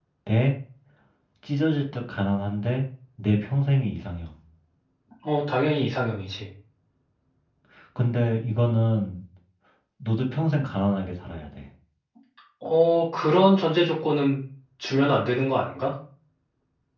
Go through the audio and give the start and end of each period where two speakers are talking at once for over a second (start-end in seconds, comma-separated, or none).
none